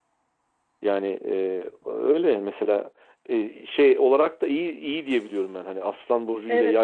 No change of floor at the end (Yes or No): No